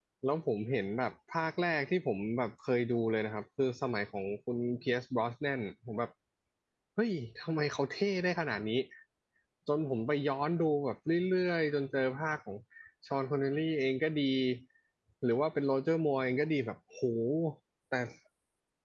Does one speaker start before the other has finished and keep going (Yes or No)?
No